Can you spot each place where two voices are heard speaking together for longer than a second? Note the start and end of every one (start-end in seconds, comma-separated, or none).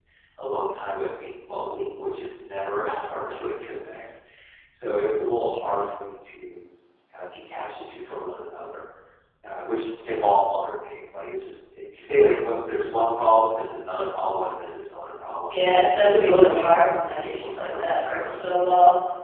16.0-18.7